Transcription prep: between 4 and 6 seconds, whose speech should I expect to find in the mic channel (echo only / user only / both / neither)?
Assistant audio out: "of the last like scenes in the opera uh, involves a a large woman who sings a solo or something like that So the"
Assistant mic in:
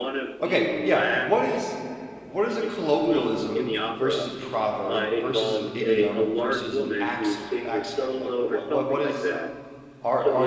both